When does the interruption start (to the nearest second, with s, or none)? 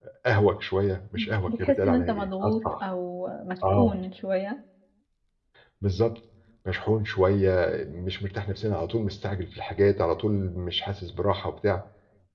1 s